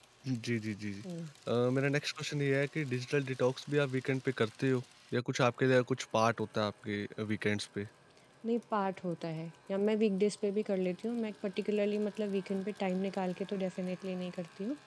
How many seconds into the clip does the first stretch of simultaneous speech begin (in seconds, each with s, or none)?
none